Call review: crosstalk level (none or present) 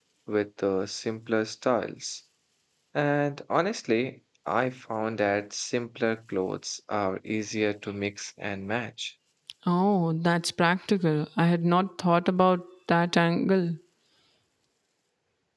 none